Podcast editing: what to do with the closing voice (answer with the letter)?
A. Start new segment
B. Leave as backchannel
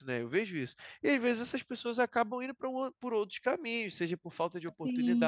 B